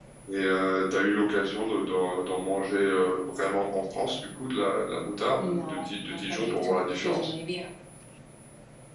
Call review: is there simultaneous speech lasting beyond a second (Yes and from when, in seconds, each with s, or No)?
Yes, from 5.4 s